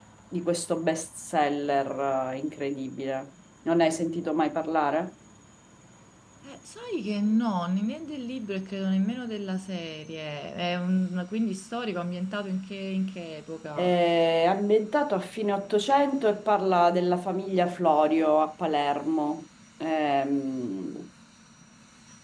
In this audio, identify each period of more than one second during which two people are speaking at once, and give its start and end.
none

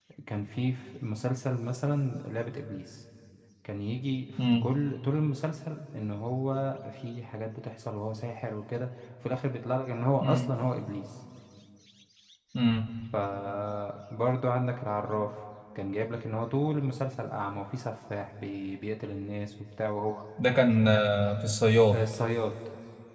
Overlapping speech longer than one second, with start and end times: none

